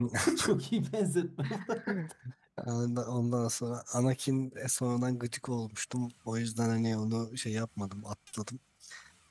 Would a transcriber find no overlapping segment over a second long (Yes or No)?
Yes